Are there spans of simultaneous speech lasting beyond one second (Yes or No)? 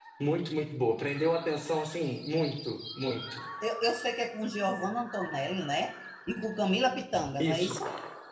No